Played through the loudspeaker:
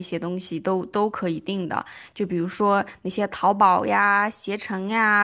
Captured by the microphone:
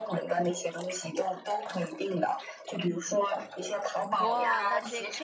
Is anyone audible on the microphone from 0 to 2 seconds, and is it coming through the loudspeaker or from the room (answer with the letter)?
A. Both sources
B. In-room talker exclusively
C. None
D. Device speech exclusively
D